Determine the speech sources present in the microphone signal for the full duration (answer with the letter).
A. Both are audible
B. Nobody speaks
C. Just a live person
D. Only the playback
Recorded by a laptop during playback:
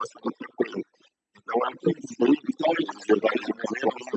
D